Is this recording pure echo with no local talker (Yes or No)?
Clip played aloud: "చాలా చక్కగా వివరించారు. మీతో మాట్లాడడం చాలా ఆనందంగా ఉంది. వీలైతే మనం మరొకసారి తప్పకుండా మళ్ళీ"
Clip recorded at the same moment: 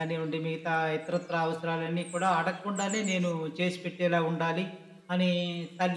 No